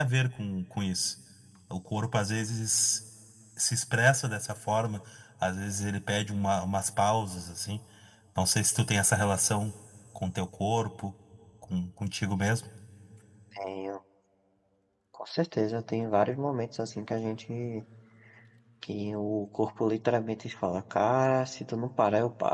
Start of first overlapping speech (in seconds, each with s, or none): none